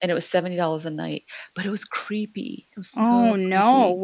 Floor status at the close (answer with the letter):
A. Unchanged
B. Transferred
B